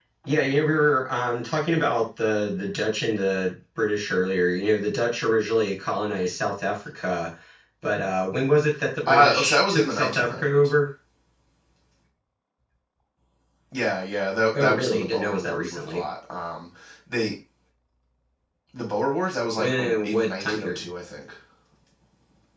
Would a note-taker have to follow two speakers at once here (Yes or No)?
Yes